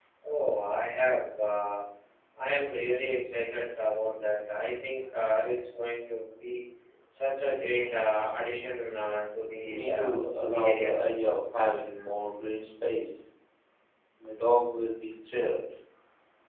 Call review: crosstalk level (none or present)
present